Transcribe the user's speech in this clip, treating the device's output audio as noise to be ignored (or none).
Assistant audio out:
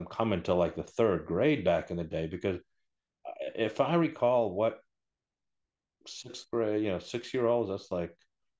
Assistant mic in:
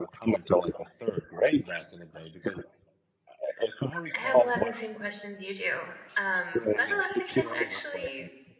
I have a lot of the same questions you do, um, but a lot of the kids actually